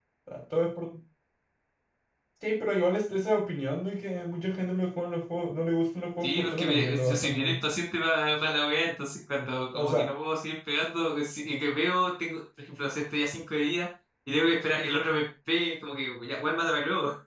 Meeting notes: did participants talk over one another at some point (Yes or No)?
Yes